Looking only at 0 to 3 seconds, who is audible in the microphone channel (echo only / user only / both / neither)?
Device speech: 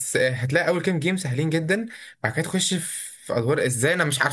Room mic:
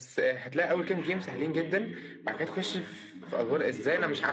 both